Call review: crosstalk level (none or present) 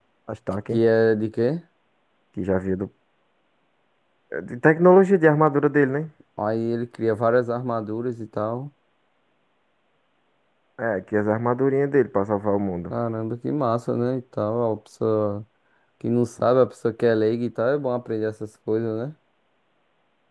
none